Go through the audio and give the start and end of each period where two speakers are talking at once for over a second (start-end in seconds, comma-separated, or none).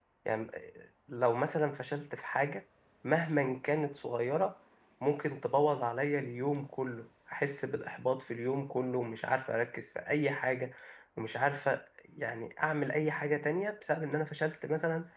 none